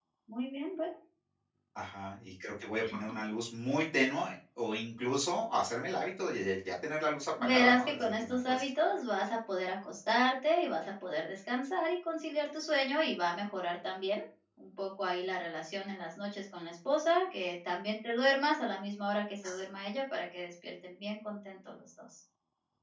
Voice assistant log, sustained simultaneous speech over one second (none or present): present